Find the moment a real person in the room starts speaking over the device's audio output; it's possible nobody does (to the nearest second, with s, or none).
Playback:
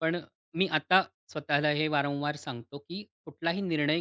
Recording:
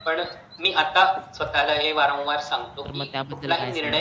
3 s